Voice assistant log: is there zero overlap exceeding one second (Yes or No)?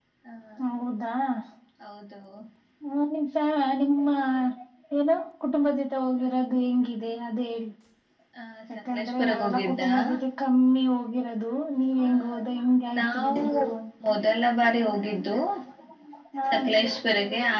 No